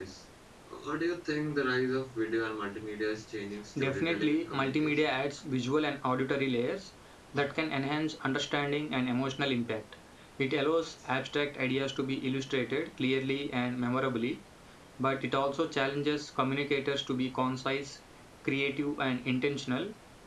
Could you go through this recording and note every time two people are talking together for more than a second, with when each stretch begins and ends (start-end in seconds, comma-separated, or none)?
3.8-5.1